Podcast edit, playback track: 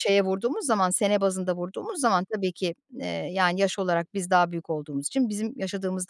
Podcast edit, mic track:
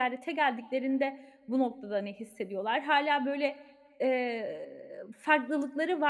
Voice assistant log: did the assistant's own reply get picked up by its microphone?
No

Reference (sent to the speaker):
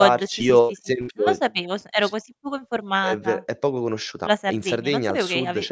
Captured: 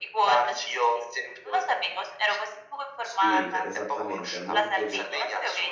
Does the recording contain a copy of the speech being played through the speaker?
Yes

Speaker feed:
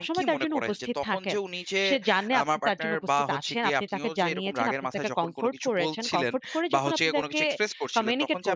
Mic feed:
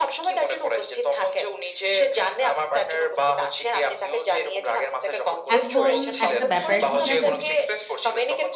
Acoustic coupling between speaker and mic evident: Yes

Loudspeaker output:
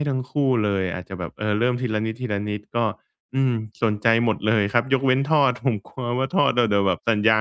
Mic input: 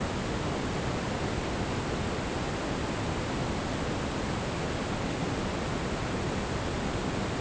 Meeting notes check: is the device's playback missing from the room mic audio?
Yes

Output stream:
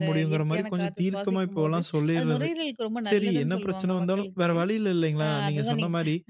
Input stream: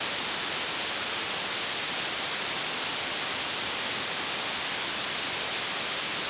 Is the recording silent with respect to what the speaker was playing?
Yes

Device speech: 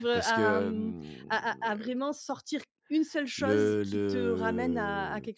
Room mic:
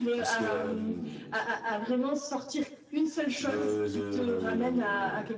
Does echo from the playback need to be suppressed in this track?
Yes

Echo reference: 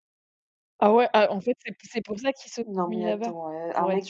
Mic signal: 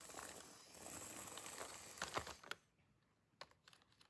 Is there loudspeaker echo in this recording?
No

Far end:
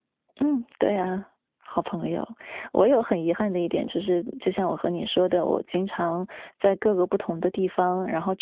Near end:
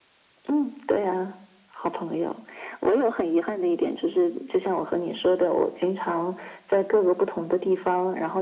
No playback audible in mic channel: No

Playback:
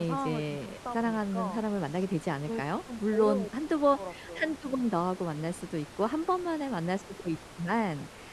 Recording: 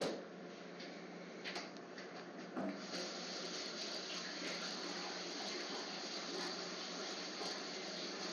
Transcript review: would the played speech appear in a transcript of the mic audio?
No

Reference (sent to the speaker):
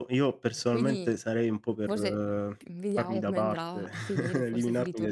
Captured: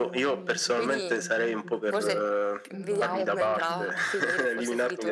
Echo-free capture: No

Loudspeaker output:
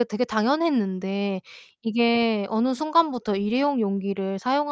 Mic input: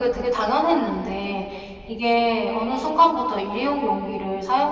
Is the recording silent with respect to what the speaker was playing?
No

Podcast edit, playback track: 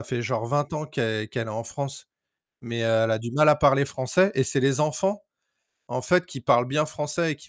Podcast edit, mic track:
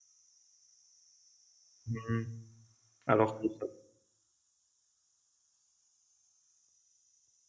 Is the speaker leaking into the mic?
No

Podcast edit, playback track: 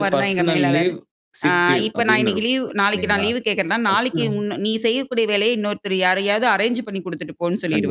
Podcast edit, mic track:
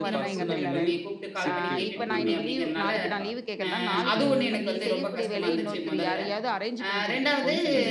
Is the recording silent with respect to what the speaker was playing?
No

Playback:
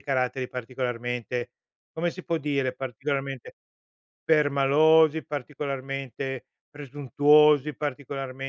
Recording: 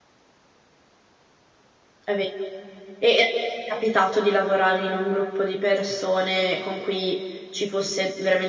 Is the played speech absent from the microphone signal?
Yes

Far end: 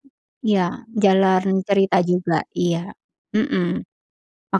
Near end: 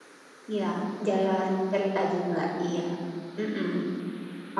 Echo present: Yes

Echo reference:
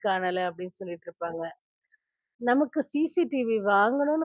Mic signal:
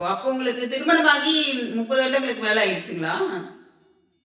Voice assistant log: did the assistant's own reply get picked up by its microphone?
No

